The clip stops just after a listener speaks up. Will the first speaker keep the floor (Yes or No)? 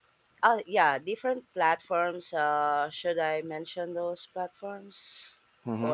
No